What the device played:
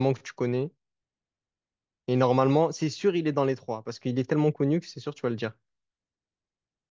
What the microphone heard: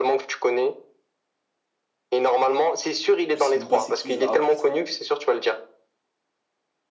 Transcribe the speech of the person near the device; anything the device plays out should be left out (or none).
je sais même pas c'est qui Zarathustra.